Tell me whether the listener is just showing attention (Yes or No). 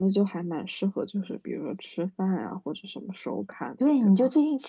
No